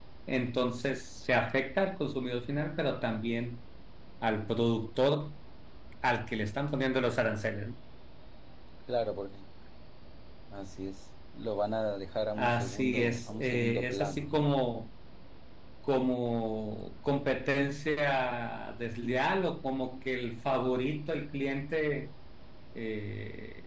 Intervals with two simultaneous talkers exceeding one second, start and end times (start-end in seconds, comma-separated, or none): 12.3-14.5